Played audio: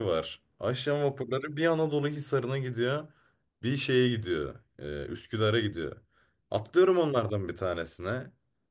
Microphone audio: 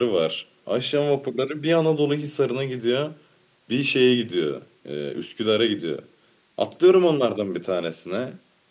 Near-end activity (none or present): none